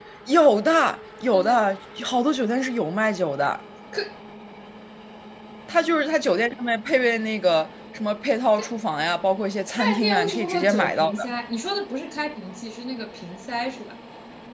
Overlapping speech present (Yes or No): Yes